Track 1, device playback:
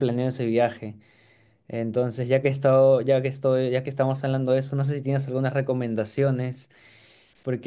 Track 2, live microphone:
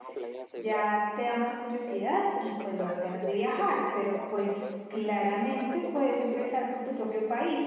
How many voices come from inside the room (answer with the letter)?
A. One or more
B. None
A